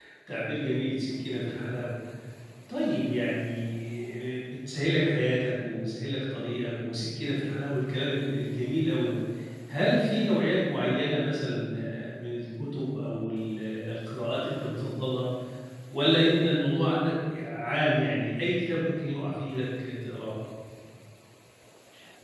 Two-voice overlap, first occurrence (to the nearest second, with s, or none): none